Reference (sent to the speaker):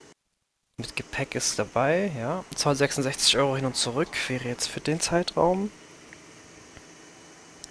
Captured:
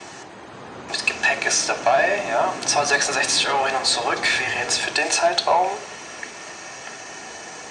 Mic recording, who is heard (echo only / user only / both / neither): echo only